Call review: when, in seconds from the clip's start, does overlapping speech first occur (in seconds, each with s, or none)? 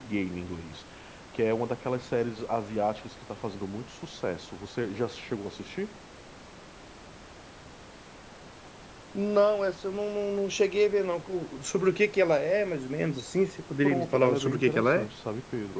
13.8 s